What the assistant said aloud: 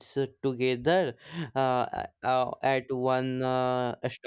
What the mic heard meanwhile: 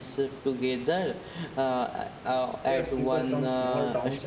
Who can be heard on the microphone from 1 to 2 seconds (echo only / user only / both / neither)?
echo only